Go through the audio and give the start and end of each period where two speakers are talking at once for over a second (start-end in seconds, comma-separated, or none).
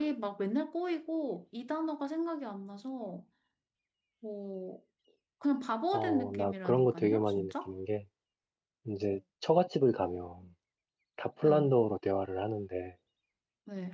5.9-7.7